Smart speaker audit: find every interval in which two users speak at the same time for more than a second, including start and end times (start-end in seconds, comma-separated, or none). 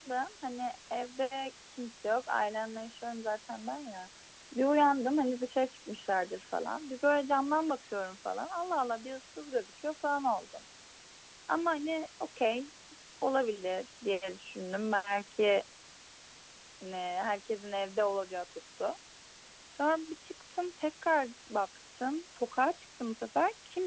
none